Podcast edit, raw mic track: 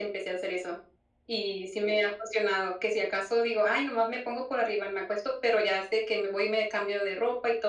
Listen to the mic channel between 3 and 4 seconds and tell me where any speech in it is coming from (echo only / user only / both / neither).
echo only